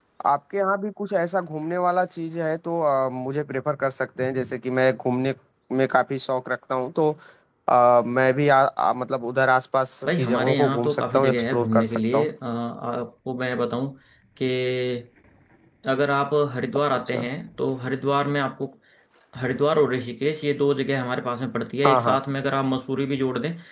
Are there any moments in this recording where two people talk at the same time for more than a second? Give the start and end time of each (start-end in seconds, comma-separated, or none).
10.1-12.3